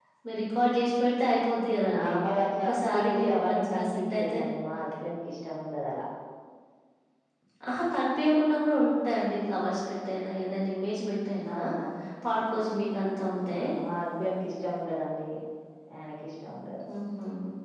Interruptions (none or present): present